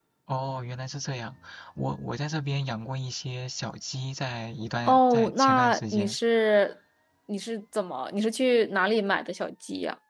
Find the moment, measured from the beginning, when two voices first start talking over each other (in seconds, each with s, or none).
4.8 s